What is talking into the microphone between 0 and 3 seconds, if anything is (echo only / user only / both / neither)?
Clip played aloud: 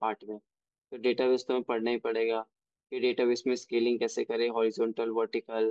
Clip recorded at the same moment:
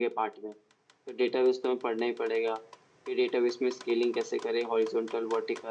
echo only